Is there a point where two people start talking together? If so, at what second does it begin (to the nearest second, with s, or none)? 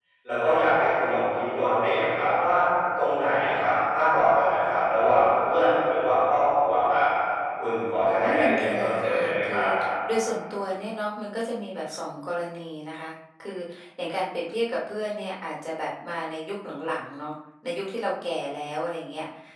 8 s